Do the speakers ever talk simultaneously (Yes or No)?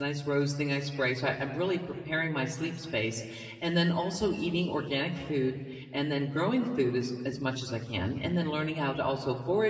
No